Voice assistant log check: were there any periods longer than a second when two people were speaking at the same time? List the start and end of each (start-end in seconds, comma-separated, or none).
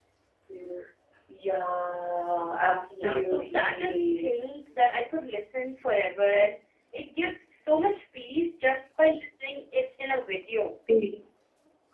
2.9-4.3